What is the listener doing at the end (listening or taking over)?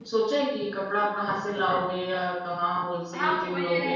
taking over